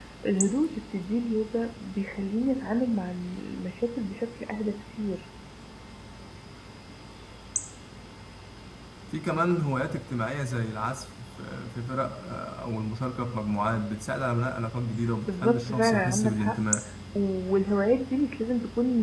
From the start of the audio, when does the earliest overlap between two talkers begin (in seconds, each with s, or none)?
15.3 s